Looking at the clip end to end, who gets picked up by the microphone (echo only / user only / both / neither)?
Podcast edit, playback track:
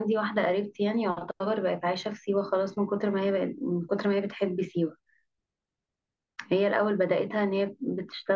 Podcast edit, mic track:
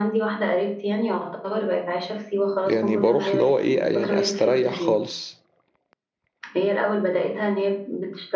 both